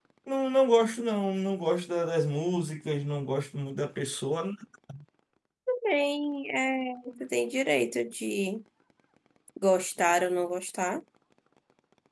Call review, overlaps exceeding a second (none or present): none